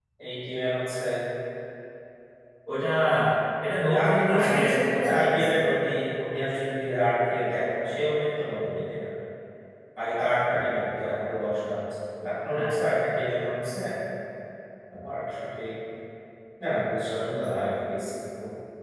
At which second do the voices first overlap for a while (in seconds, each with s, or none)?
3.8 s